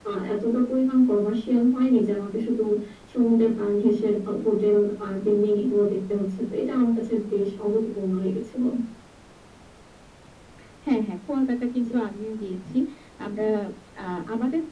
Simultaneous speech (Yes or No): No